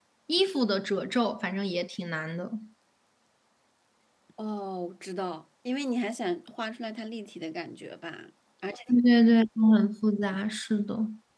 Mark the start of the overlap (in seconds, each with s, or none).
none